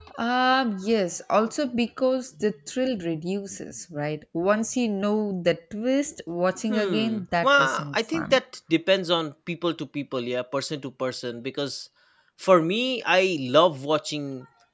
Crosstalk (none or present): present